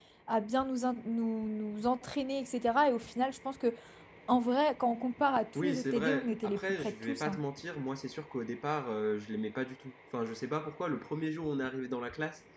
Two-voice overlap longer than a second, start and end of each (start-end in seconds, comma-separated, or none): 5.6-7.4